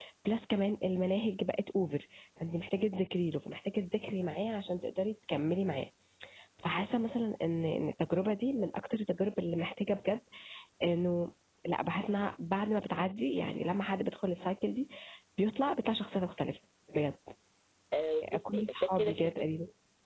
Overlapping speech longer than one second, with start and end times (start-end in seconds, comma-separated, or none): 18.2-19.4